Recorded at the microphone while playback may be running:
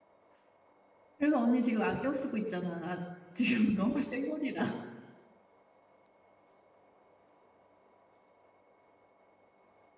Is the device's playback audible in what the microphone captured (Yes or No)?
No